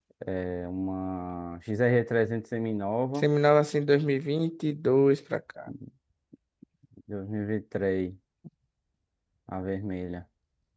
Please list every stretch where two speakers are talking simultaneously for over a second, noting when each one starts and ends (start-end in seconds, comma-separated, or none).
none